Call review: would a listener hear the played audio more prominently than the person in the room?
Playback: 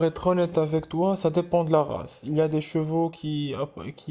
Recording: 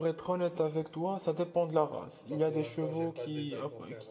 Yes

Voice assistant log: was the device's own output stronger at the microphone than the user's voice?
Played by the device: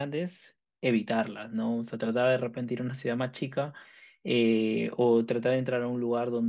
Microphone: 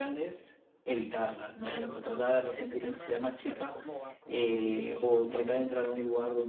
Yes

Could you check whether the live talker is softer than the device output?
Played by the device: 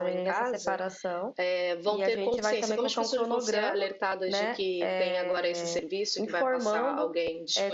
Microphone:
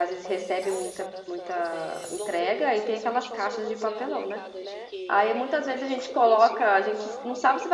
No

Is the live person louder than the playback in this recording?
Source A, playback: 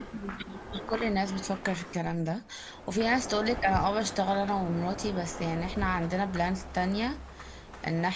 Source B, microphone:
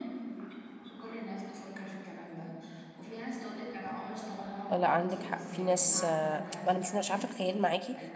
Yes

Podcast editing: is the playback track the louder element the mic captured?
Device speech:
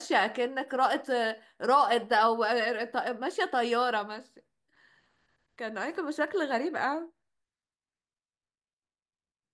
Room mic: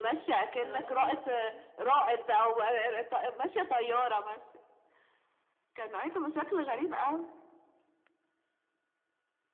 Yes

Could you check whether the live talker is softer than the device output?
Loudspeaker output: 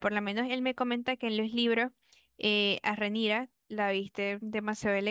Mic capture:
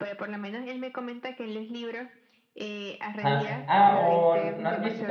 No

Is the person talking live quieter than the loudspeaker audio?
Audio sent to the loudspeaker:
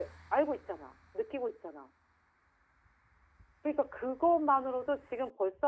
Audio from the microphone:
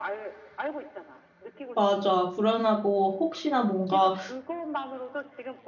No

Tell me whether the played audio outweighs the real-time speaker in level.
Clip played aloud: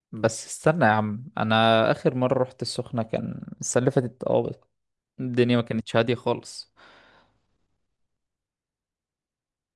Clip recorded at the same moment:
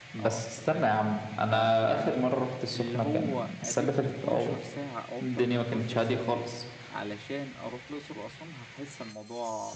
Yes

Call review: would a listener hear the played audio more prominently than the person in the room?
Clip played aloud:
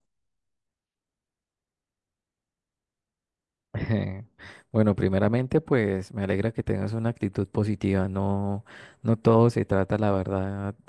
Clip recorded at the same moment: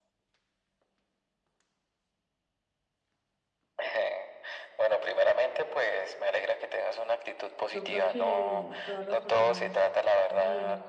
Yes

